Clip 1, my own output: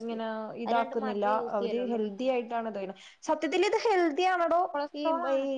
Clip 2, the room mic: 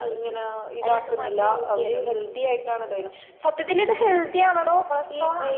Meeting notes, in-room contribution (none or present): none